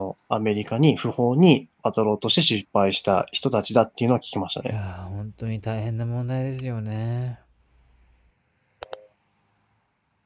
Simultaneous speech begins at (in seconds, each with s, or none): none